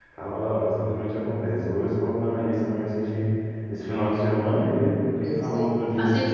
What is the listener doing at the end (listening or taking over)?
taking over